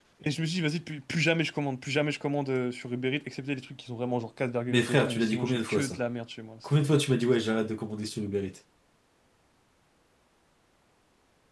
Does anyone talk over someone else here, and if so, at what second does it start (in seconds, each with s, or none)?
4.7 s